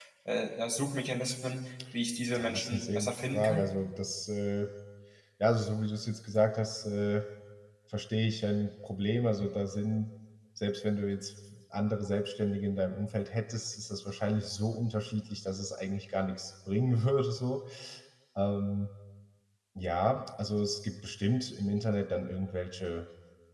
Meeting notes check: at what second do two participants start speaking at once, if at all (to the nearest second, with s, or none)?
2 s